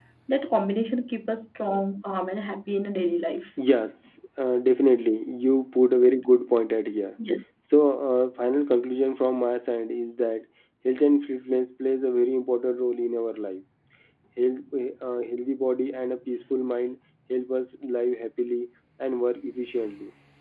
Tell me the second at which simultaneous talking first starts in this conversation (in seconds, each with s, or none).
none